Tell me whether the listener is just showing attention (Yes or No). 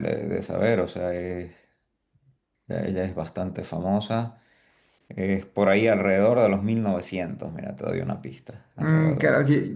No